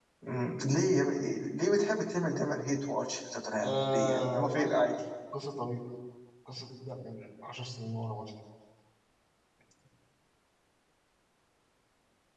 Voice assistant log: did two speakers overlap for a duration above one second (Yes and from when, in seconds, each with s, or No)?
Yes, from 3.6 s